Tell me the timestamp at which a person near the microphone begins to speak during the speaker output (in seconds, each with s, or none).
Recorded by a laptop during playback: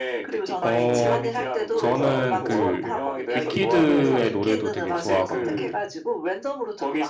0.6 s